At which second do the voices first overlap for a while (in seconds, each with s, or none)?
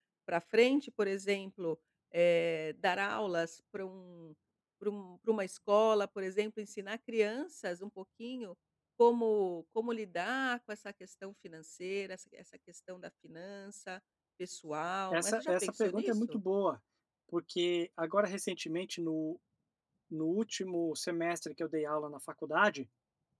15.1 s